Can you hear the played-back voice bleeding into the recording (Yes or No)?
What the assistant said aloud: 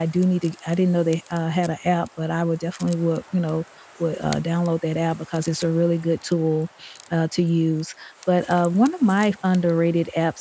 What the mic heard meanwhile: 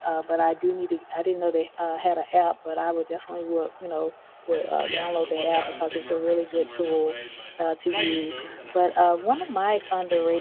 Yes